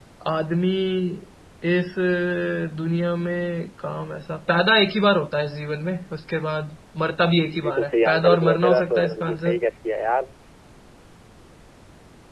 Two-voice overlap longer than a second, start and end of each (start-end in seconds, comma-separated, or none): 7.6-9.6